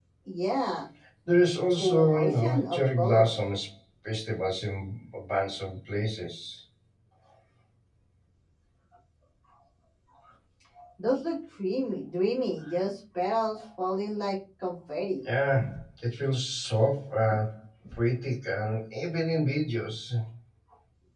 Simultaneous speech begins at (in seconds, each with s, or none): 1.8 s